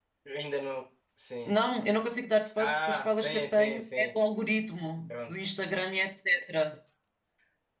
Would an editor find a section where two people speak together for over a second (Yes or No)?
Yes